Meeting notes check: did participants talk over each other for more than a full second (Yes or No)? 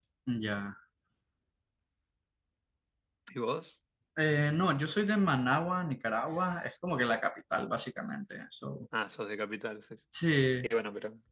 No